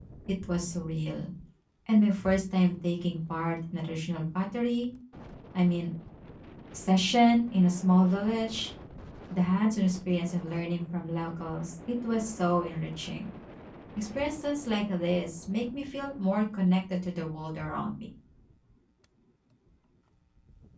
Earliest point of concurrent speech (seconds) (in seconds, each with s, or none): none